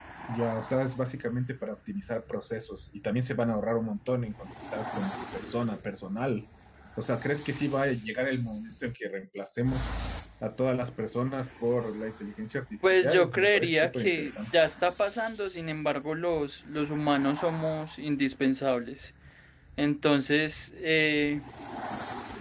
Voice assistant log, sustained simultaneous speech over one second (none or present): present